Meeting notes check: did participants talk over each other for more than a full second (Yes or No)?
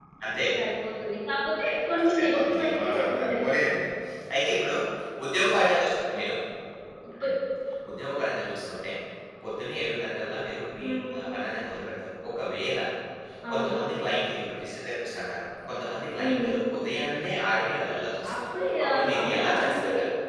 Yes